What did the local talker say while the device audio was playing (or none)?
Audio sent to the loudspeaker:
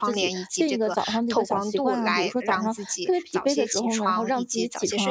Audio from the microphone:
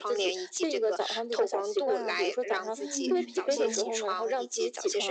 嗯，是的，